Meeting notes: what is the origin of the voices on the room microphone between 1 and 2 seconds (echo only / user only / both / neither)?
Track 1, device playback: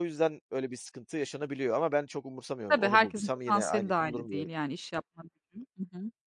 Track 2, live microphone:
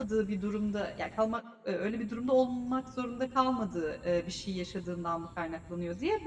user only